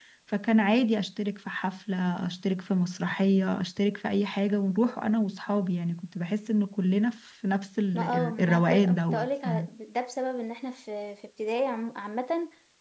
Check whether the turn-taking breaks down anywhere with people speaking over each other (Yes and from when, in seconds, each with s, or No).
Yes, from 7.9 s